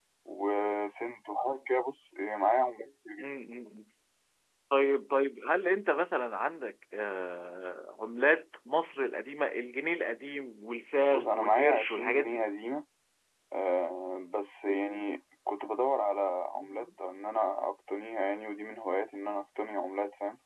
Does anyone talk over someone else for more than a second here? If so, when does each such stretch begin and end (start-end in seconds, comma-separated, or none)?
11.1-12.4